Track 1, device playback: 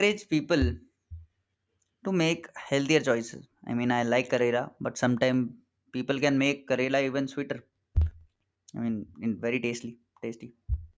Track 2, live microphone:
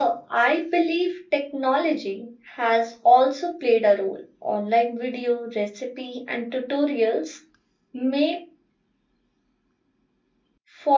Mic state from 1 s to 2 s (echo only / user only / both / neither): user only